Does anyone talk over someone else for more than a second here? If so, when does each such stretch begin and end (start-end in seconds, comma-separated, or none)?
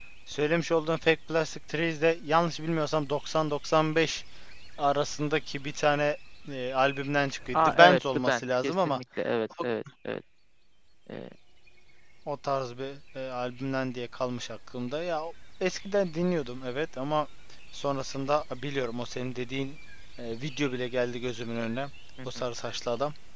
7.5-9.0